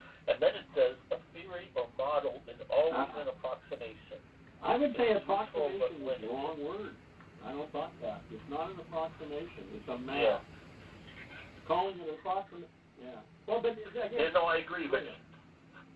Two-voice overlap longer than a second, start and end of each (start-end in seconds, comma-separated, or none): 4.9-6.5